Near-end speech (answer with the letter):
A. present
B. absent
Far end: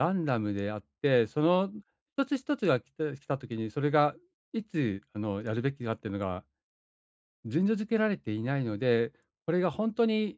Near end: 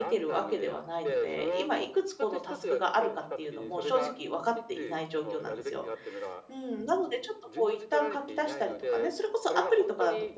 A